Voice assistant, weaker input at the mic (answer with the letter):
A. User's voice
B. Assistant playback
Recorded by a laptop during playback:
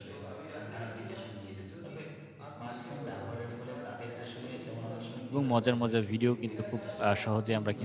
B